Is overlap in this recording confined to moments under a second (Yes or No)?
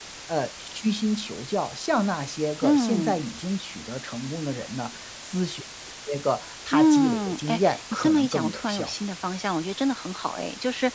No